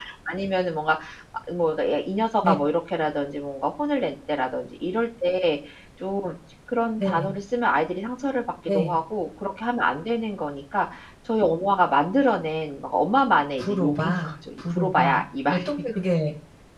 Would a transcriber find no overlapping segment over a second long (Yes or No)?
No